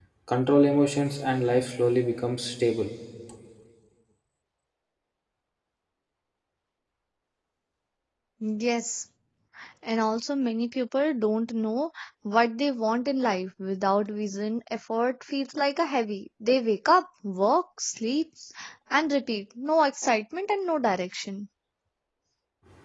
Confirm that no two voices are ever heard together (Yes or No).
Yes